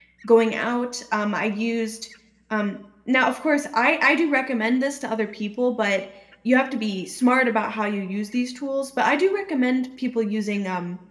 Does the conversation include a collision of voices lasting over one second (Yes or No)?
No